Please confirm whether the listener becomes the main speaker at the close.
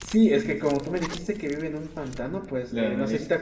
No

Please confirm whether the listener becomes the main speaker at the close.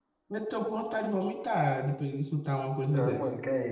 Yes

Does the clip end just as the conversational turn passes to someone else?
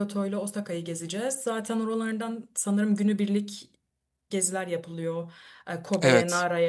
No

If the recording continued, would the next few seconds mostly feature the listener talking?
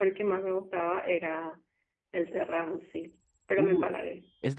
Yes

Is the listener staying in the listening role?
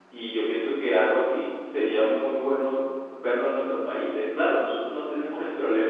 Yes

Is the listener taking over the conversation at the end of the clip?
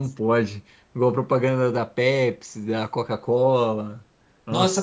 Yes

